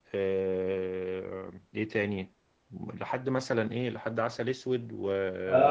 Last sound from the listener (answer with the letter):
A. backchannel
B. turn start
B